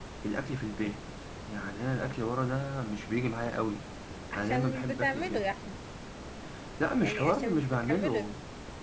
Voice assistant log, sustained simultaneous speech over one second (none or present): present